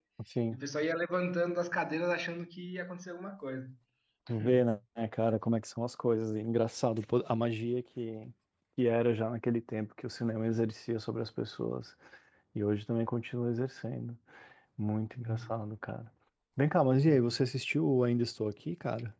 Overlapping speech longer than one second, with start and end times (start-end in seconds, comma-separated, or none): none